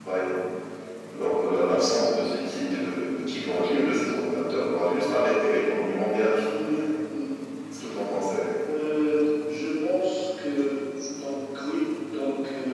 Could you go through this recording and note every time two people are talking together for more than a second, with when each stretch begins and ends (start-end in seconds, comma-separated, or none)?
none